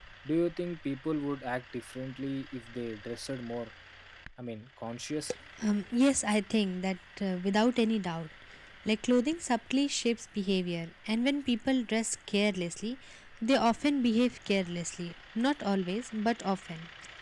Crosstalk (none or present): none